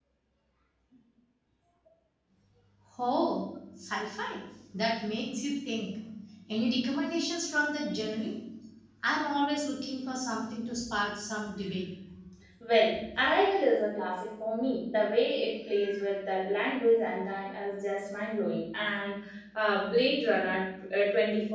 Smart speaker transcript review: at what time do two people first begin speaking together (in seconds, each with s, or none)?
none